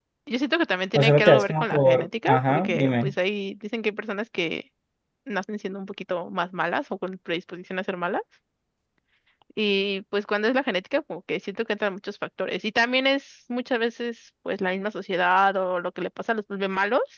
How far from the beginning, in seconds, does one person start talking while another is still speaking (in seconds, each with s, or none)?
0.9 s